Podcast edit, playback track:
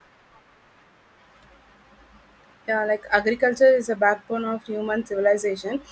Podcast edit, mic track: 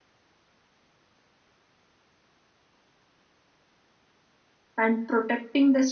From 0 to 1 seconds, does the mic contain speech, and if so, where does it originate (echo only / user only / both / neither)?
neither